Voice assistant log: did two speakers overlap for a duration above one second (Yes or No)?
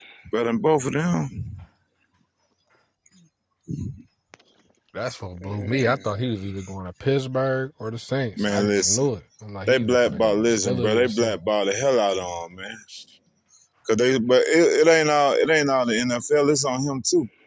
Yes